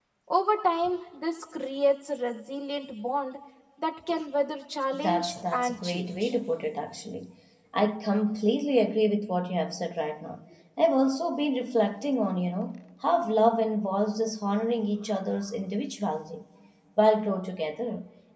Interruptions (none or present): present